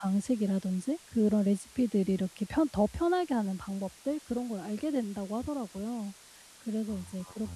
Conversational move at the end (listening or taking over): listening